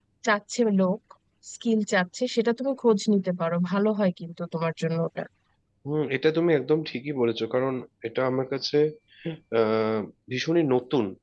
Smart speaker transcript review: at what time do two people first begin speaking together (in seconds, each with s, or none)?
none